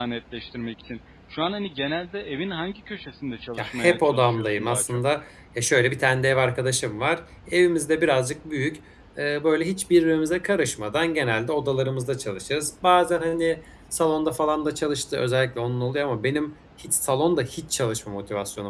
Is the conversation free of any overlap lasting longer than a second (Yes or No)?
No